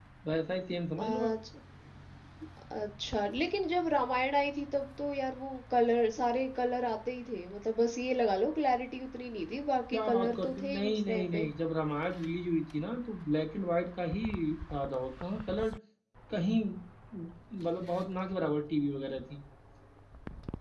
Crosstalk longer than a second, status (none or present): present